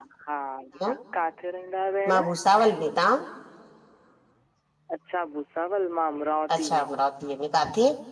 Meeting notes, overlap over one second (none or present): none